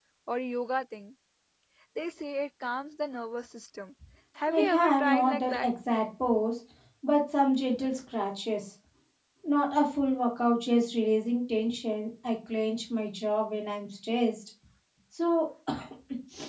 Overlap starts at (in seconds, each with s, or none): 4.5 s